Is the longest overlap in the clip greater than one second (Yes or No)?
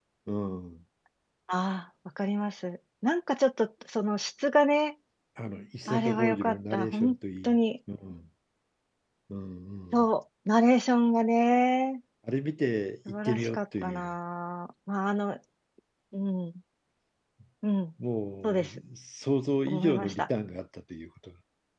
Yes